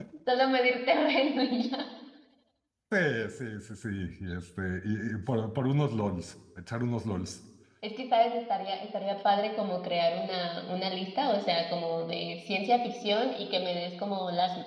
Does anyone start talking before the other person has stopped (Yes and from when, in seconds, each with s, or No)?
No